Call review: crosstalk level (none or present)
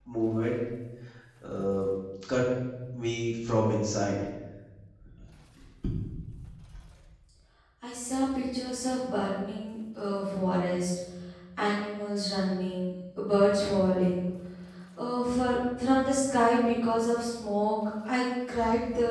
none